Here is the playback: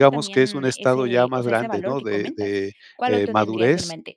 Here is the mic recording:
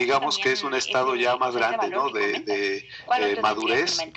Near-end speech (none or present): none